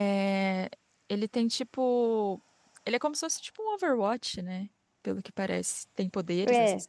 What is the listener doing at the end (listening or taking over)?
taking over